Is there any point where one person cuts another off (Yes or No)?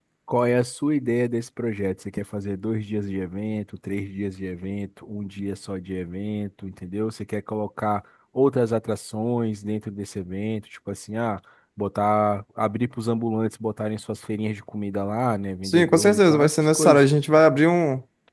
Yes